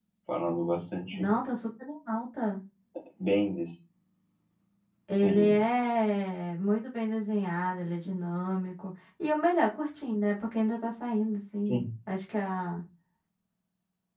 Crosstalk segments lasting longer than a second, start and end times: none

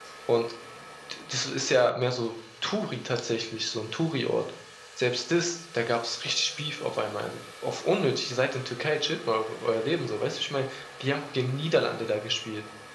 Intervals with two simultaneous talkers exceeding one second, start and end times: none

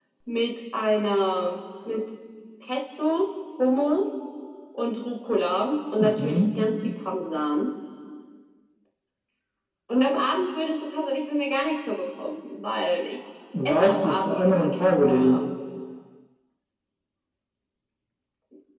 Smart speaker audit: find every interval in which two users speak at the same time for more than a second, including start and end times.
13.7-15.4

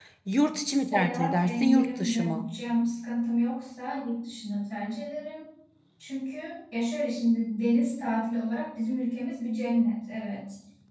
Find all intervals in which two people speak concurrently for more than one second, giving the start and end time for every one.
0.6-2.5

